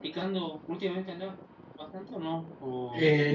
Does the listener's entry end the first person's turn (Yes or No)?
Yes